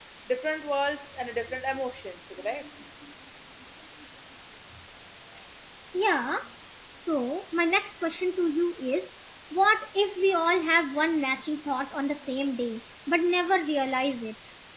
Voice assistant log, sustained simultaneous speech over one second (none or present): none